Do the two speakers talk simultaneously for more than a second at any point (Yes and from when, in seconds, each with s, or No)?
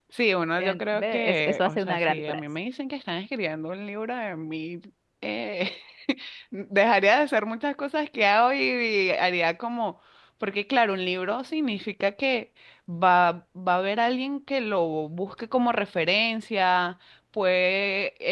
Yes, from 0.6 s